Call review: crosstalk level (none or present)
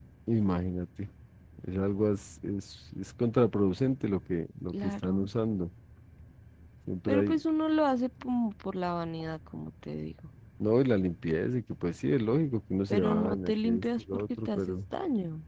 present